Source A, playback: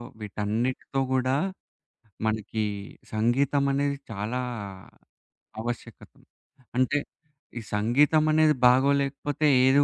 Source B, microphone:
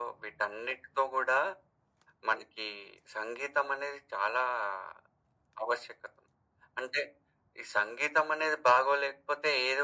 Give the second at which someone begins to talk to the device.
none

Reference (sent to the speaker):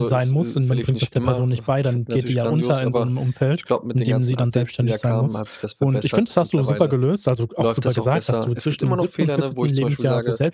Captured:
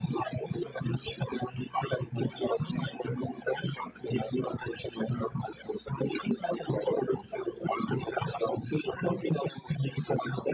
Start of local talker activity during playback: none

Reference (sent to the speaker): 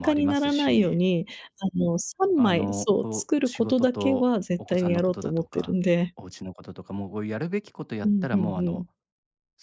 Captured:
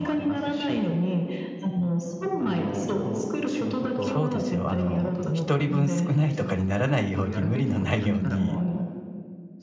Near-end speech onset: 4 s

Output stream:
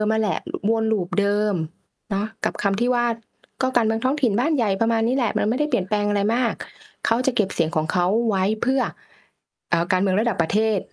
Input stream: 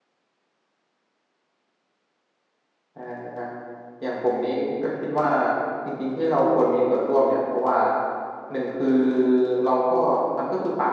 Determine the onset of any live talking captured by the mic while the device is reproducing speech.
3 s

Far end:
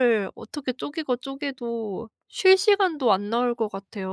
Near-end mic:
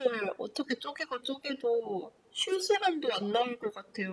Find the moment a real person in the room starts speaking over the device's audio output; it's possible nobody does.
none

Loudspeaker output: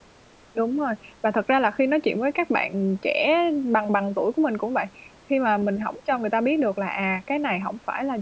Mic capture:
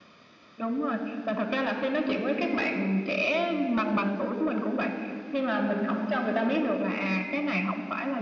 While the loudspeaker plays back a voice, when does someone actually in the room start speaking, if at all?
none

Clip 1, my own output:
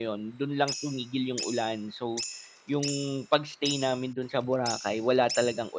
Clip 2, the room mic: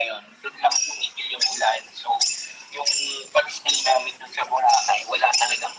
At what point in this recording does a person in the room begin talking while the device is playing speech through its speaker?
none

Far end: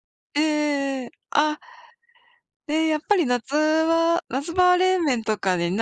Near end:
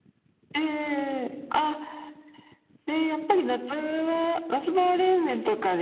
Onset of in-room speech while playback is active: none

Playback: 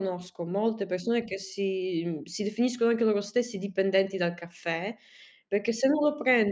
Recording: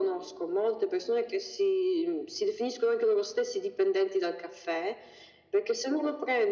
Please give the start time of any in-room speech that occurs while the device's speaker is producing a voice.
none

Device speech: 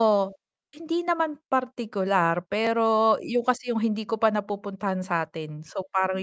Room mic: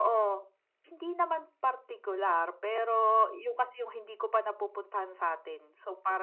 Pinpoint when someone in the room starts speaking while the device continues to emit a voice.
none

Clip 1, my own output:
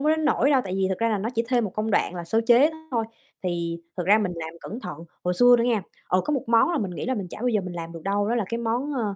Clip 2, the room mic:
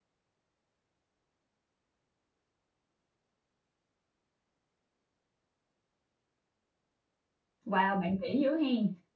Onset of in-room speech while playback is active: 8 s

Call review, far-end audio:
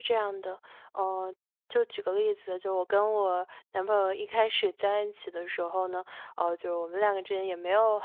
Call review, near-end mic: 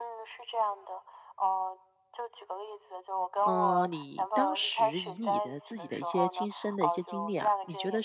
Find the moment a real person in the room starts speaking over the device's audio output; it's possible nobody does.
3 s

